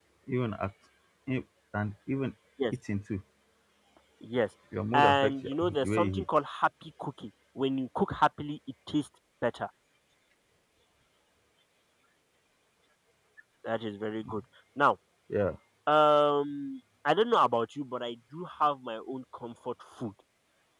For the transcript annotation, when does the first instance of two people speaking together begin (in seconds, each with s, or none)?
4.9 s